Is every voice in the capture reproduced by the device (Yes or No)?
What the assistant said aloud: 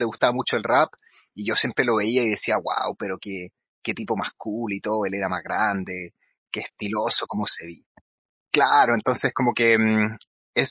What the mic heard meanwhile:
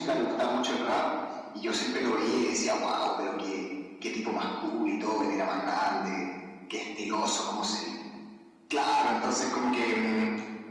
Yes